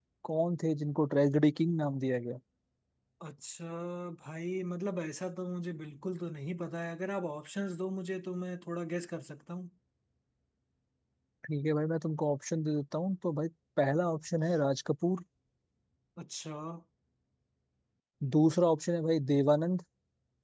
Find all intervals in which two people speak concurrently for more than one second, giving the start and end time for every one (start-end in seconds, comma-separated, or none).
none